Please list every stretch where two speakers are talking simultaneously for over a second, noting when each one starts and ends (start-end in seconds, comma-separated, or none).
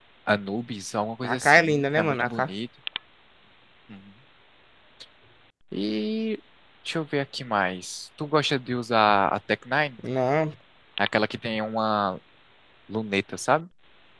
1.2-2.5